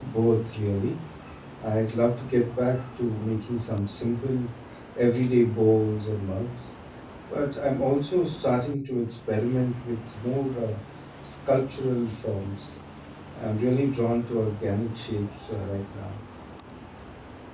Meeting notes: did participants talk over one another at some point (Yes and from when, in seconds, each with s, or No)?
No